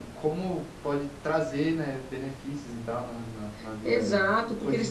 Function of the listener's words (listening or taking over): taking over